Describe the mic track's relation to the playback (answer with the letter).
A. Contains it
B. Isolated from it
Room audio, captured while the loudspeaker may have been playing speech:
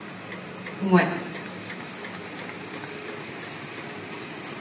B